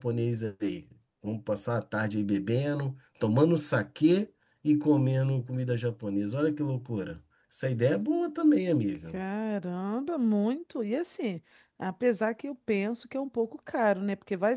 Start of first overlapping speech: none

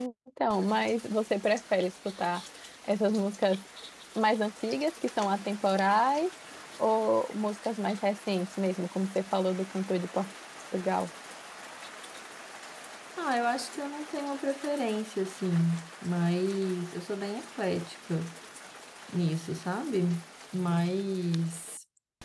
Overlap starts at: none

